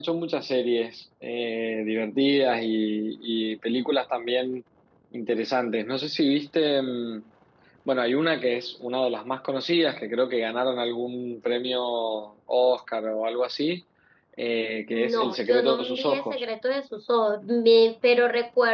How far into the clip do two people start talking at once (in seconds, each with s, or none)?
14.9 s